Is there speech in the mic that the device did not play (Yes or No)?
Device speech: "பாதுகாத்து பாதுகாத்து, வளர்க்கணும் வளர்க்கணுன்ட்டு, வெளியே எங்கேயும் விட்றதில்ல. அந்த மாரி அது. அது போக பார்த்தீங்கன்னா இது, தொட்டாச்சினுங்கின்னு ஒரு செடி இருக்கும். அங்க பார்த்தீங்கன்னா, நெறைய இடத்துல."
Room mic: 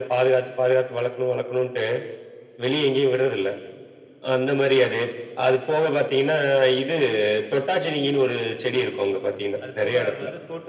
Yes